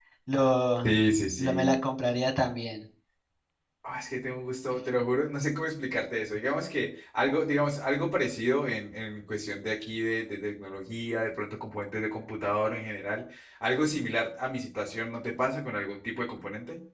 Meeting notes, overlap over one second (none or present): none